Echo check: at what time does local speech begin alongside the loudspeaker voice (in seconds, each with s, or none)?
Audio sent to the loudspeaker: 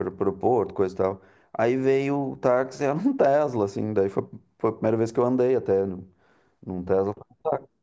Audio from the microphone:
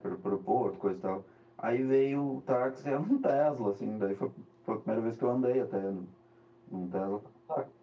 none